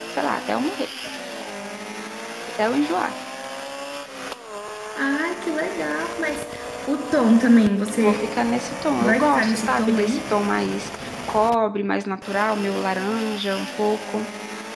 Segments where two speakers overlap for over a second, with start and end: 9.0-10.2

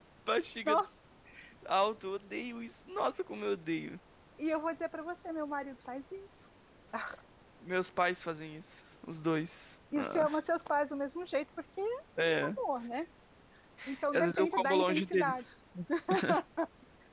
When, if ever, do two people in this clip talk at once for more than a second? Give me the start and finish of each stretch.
14.1-15.4

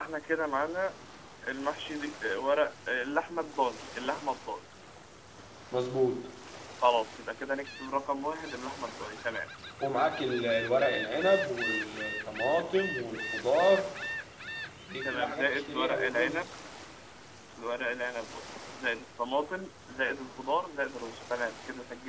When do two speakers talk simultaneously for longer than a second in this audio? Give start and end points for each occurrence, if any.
15.0-16.4

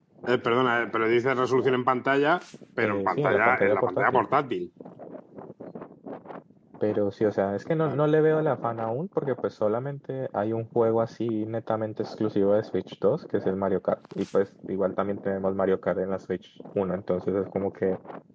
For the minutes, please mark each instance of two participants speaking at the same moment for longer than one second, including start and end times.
2.8-4.2

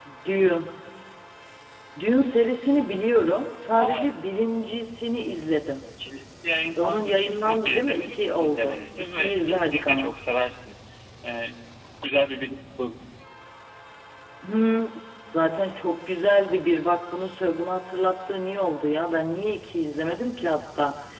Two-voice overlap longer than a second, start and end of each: 6.8-10.1

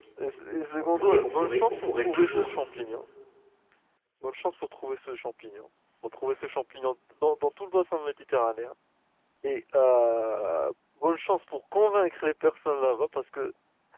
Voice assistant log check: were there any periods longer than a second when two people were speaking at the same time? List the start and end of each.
0.8-2.6

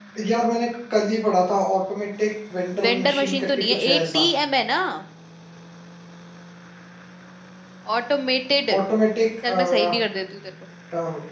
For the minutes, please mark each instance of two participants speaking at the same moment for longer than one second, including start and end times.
2.8-4.2

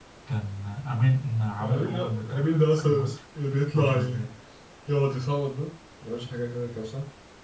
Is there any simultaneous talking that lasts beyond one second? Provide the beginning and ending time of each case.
1.6-3.1

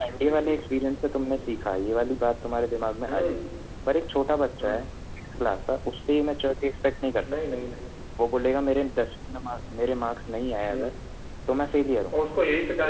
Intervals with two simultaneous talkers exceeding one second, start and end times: none

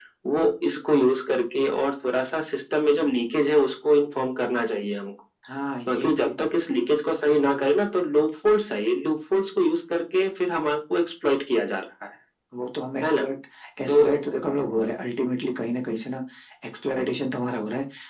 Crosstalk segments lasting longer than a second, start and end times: none

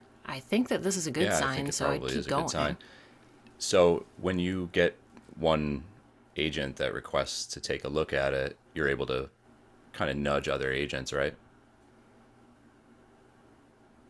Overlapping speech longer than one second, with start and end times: 1.2-2.8

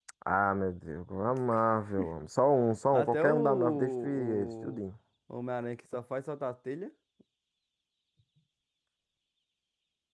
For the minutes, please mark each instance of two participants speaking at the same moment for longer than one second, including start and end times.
2.9-4.8

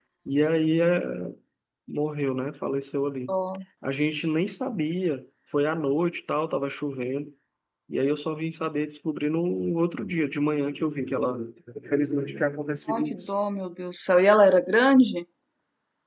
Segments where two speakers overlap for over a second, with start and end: none

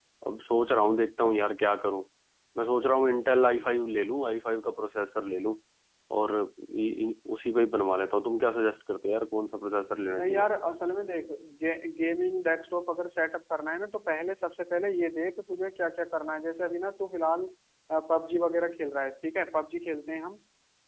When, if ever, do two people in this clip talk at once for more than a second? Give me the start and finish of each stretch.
none

